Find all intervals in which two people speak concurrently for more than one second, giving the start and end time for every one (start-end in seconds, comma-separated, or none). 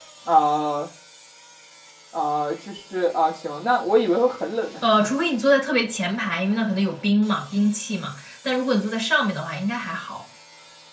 none